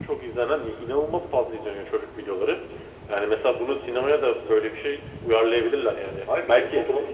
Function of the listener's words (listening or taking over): taking over